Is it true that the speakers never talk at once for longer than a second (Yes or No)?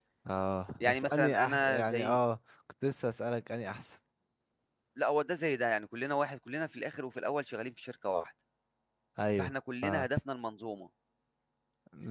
No